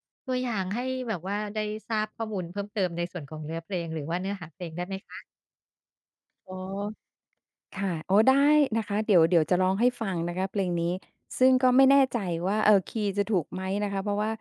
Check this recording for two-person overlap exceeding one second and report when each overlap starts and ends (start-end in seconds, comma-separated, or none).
none